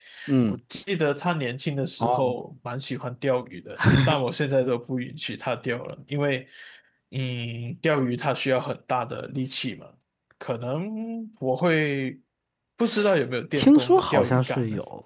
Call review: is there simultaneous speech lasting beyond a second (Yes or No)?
Yes